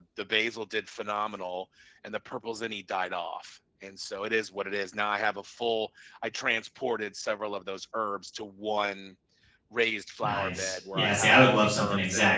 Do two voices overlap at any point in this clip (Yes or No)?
Yes